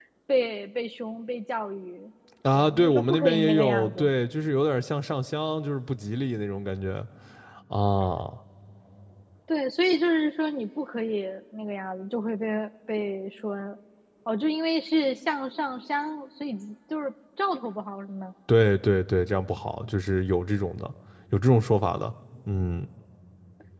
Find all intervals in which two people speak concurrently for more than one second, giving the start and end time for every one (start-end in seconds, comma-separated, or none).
2.5-4.0